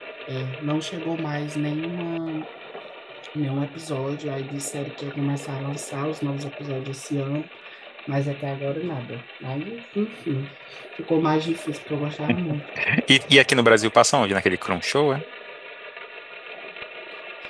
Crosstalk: none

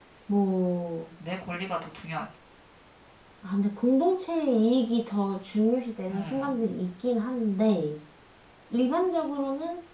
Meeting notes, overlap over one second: none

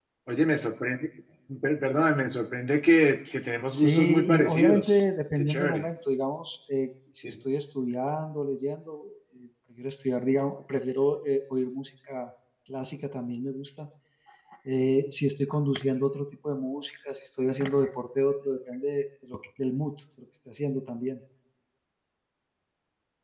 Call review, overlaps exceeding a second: present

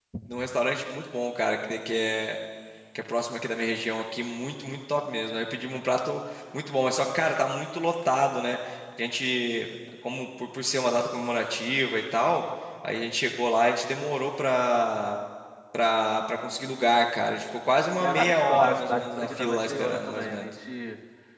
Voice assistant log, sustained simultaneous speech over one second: present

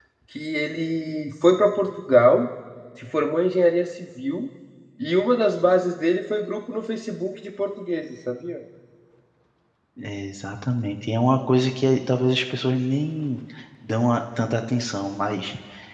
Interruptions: none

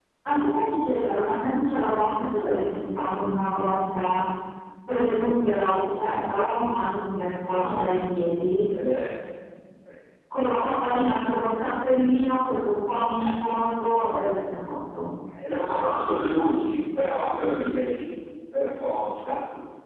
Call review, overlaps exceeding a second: none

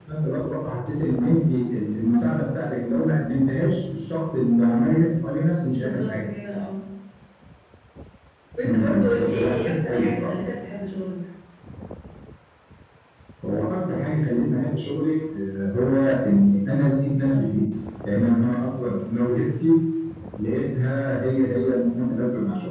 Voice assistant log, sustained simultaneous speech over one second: present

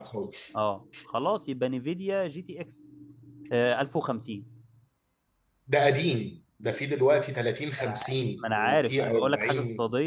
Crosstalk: present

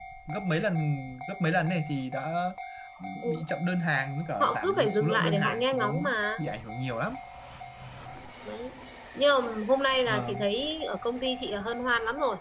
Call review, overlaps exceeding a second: present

